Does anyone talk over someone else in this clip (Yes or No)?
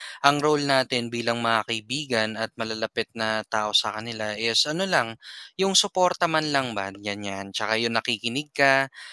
No